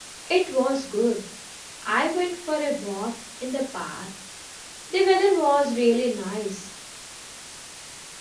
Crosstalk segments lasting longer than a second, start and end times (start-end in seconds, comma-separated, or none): none